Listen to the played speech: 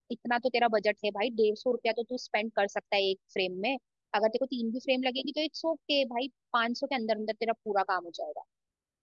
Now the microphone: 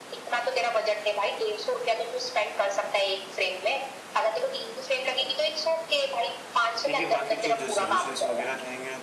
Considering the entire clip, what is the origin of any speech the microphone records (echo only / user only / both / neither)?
both